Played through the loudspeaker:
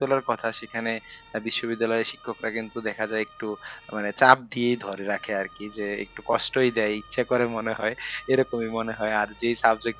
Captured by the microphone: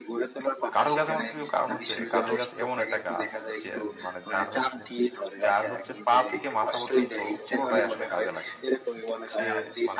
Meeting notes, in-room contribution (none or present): present